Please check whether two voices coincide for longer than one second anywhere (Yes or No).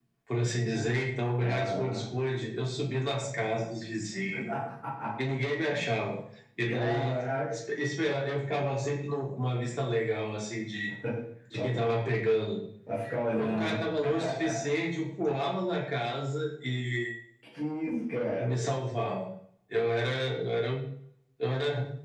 No